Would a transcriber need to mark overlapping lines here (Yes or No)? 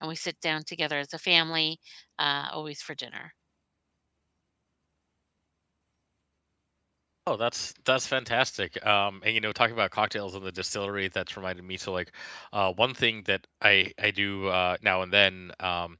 No